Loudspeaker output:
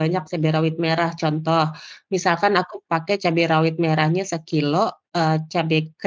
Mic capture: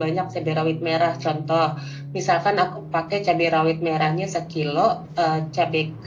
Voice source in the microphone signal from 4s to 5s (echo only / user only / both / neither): echo only